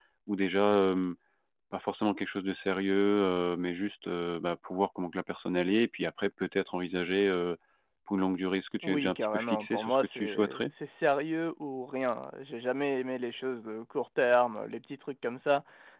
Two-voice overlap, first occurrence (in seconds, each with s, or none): 8.8 s